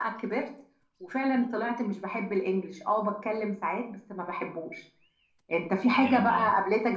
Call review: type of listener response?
listening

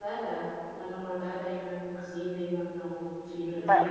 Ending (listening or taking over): taking over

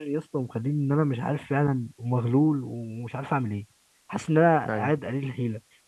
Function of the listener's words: listening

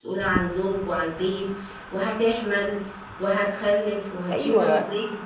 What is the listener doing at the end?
taking over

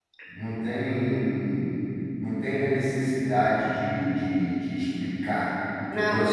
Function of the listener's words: taking over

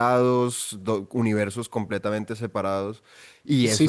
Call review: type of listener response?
taking over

